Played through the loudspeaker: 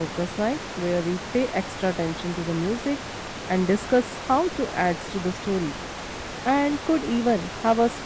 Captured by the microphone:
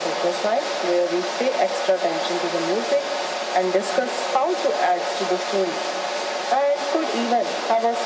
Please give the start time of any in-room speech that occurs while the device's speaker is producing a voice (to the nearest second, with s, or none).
none